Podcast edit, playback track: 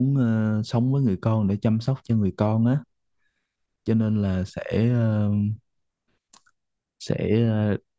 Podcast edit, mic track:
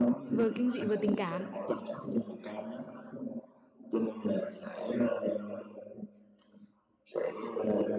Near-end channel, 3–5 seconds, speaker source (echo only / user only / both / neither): echo only